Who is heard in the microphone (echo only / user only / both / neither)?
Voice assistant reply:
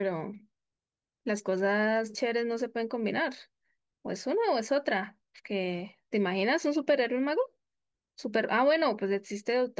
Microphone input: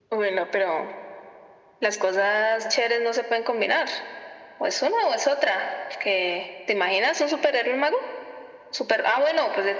echo only